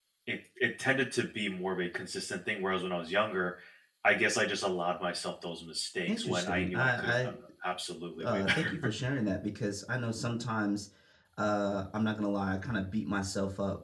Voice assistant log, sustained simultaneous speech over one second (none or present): present